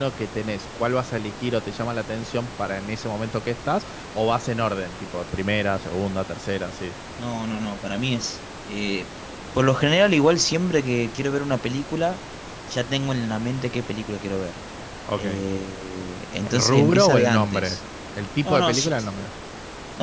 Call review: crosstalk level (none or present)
present